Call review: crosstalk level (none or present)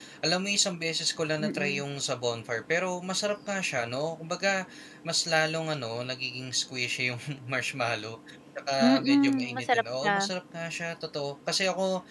present